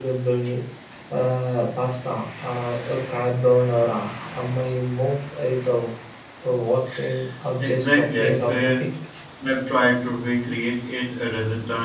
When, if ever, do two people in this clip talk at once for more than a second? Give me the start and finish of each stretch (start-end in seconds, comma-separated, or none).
7.6-8.8